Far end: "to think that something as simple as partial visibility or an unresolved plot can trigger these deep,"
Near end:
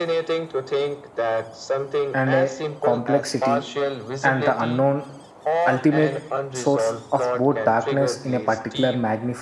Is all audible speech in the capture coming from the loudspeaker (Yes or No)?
No